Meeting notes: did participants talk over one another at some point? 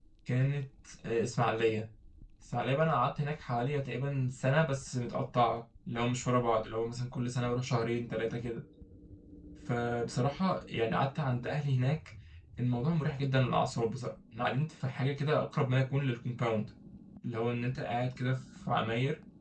No

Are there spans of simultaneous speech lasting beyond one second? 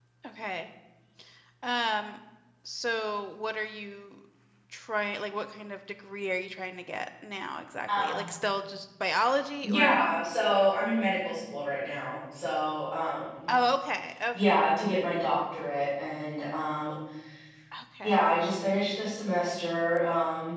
No

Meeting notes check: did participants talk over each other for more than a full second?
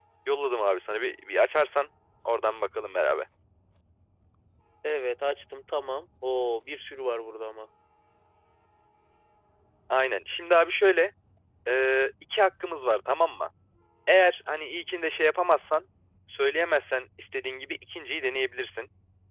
No

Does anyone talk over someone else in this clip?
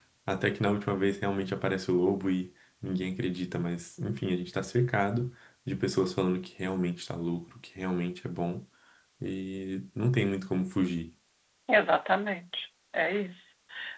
No

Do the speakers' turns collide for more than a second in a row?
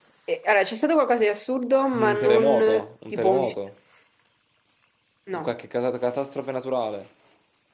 Yes, from 2.1 s

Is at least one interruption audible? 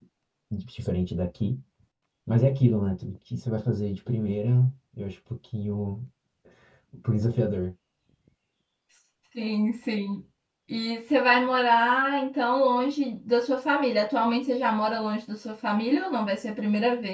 No

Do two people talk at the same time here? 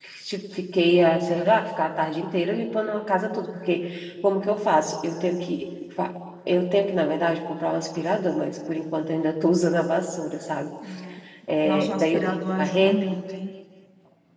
Yes, from 11.6 s

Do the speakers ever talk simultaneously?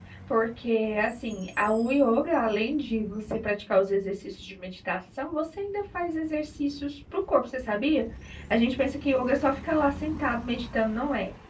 No

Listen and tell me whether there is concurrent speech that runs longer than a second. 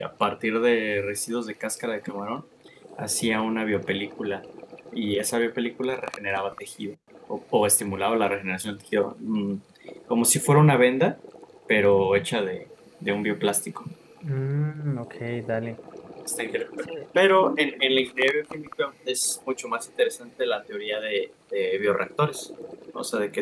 No

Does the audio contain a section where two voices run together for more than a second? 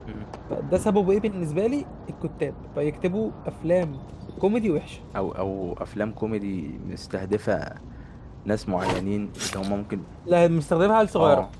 No

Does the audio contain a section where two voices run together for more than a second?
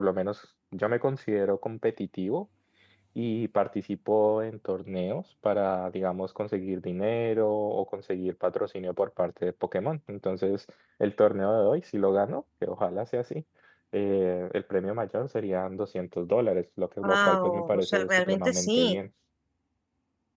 Yes, from 17.0 s

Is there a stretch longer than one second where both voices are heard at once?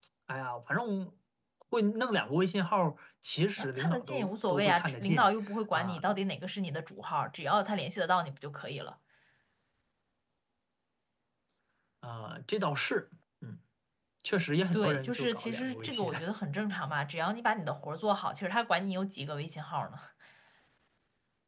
Yes, from 3.6 s

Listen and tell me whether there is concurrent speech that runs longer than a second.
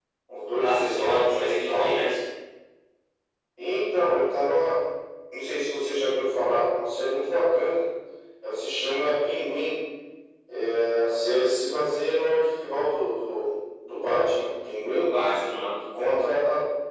Yes, from 0.6 s

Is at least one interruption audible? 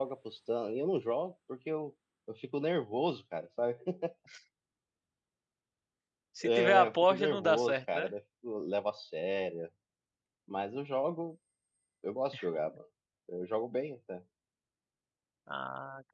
Yes, from 6.4 s

